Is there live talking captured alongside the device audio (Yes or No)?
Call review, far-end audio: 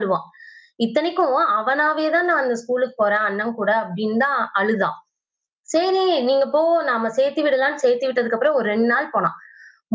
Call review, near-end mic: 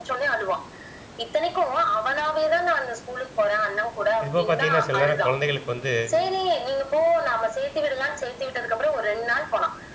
Yes